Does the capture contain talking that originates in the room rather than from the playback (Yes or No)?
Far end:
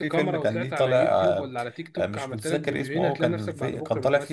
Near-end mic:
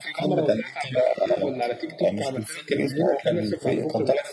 No